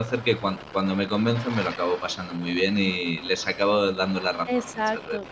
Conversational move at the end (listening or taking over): taking over